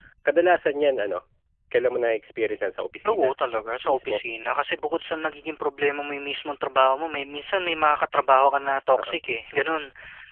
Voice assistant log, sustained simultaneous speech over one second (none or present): none